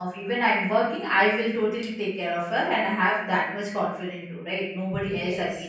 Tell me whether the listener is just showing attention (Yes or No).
Yes